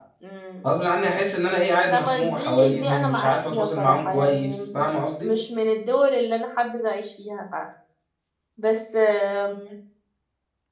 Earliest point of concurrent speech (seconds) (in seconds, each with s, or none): 1.9 s